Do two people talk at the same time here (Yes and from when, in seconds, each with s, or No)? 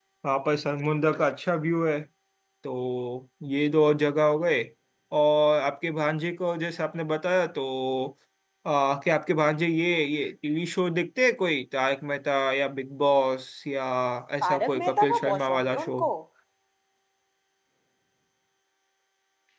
Yes, from 14.4 s